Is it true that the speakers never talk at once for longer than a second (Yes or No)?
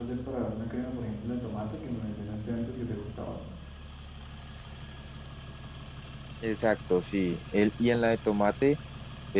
Yes